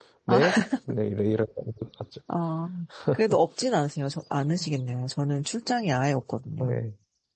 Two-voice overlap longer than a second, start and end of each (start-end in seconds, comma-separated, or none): none